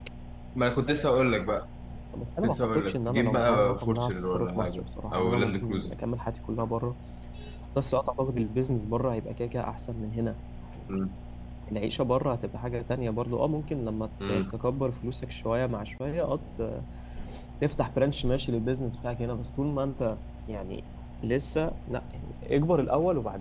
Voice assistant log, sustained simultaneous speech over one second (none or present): present